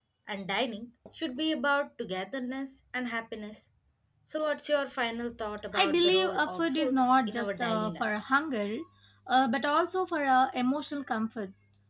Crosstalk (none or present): present